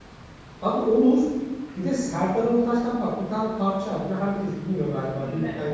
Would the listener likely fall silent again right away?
Yes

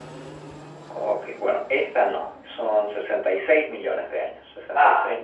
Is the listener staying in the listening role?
Yes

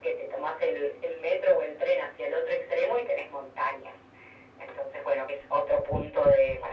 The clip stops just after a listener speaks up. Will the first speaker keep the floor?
Yes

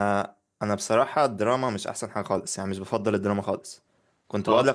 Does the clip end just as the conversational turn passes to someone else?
No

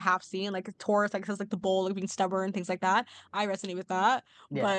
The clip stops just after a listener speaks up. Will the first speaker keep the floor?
Yes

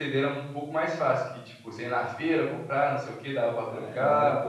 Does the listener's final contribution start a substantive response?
Yes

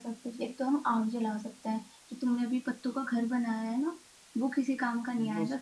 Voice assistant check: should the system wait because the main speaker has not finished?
Yes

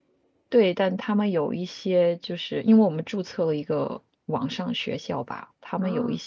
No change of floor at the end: Yes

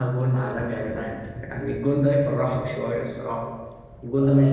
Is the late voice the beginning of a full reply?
Yes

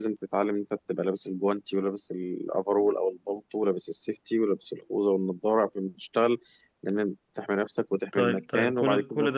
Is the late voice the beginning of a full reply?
Yes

